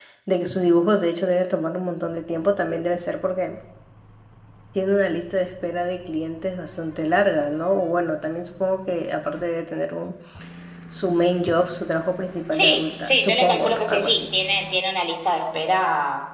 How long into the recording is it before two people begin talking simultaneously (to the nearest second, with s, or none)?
13 s